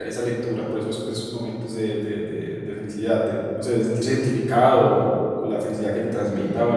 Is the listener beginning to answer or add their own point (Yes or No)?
No